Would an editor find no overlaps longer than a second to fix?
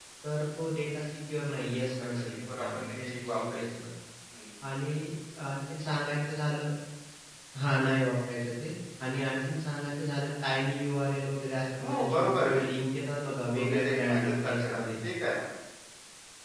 No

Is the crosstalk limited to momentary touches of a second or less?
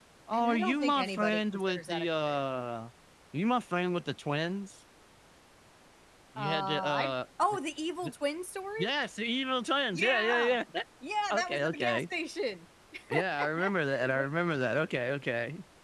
No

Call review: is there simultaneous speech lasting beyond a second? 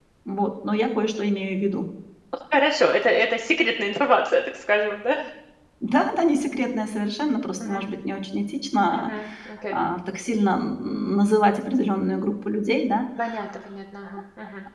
No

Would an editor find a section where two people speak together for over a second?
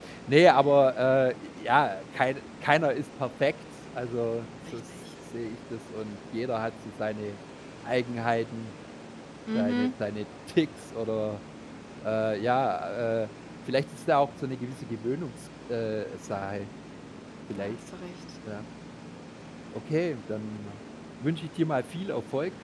No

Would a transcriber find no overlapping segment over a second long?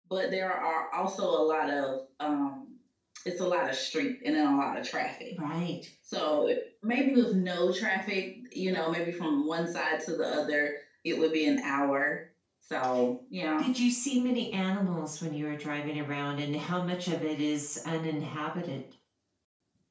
Yes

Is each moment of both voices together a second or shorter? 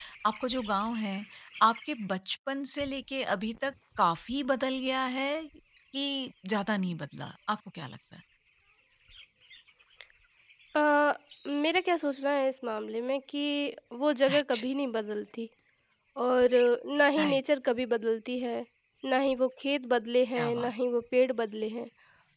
Yes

